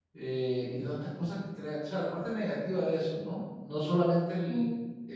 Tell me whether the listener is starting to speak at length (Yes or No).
No